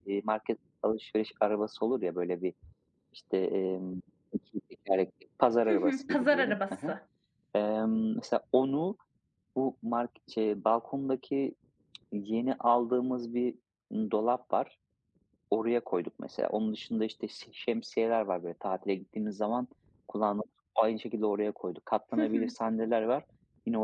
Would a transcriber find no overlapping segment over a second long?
No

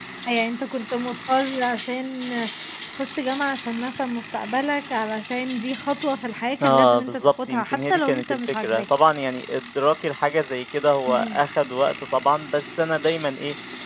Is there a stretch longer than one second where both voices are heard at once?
Yes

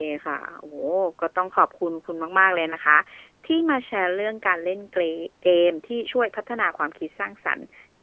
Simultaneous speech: No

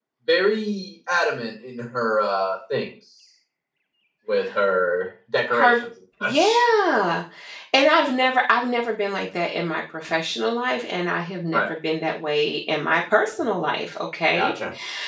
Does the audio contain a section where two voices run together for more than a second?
No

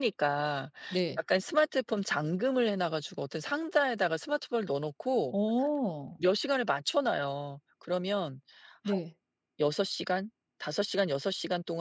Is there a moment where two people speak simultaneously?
No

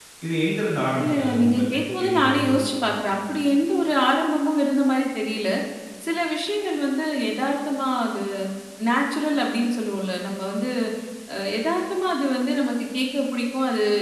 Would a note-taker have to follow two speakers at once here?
Yes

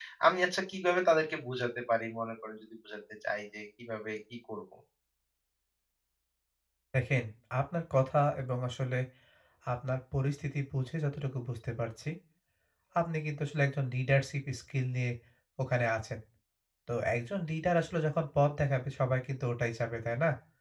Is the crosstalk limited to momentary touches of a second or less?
Yes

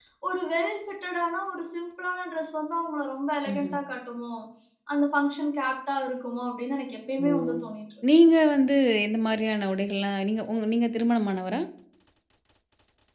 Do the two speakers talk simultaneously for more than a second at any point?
No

